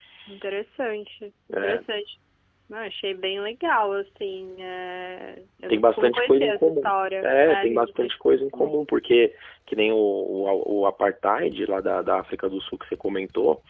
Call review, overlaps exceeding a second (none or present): present